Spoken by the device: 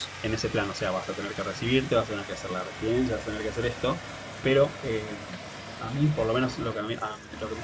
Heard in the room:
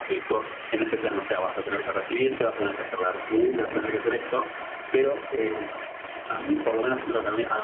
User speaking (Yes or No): No